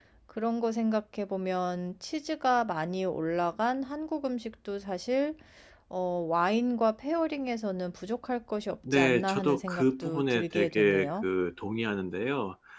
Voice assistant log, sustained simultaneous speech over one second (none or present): present